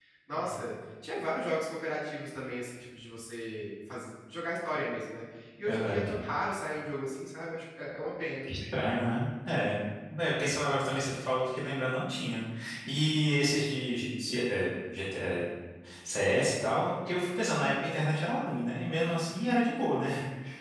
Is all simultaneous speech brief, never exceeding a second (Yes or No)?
Yes